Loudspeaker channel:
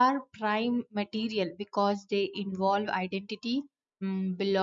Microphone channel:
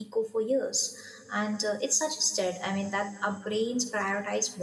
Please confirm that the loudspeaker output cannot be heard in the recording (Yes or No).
Yes